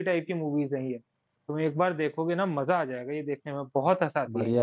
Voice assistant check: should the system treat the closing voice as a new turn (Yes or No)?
Yes